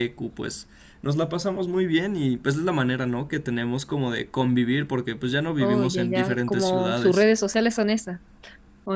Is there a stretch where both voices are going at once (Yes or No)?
Yes